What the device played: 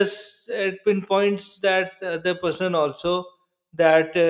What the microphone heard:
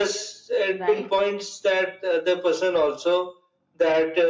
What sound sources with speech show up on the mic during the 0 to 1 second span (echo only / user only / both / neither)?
both